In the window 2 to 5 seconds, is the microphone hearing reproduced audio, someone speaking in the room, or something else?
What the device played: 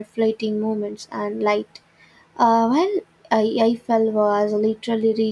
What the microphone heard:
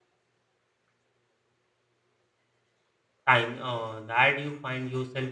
user only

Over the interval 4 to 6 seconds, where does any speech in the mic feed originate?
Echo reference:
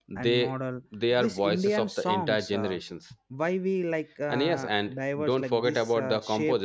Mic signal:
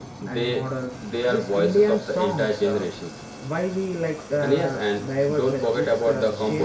echo only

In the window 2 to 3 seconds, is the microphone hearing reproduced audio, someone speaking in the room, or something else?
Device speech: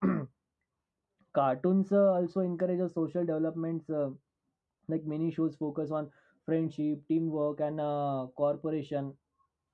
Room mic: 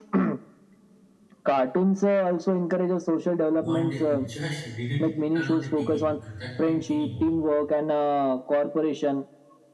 echo only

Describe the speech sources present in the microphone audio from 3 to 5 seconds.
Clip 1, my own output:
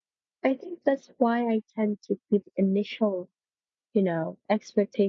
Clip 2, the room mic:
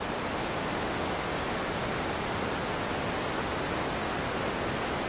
neither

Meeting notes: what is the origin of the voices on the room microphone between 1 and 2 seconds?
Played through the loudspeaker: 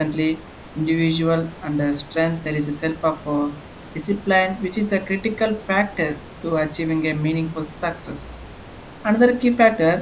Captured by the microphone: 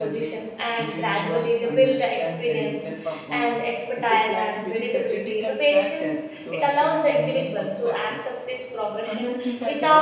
both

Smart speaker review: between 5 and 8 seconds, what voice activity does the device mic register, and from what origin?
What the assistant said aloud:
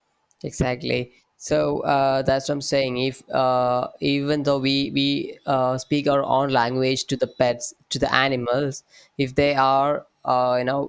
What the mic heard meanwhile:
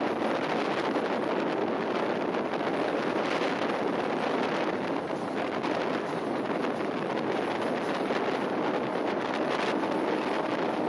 neither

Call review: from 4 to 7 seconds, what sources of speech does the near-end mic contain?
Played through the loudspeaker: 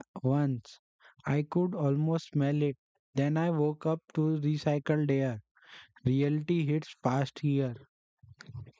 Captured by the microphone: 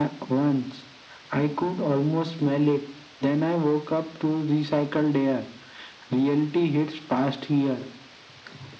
echo only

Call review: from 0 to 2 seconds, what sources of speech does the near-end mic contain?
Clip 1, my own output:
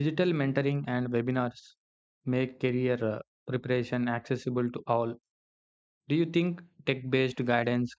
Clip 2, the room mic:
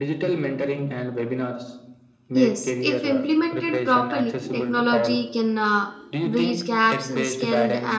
echo only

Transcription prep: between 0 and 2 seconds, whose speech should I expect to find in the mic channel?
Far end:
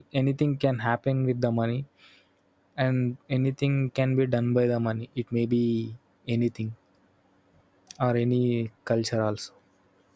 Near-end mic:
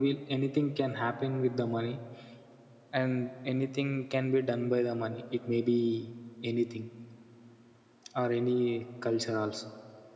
echo only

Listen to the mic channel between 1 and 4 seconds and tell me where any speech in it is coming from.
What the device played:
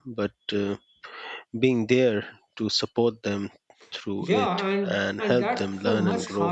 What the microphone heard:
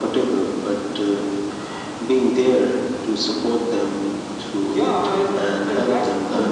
echo only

